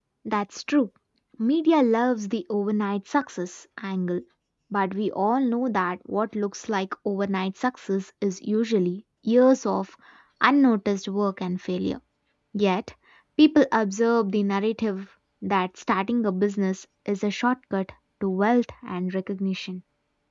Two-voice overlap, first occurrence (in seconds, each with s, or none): none